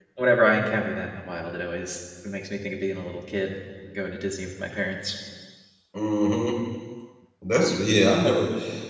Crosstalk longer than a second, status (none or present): none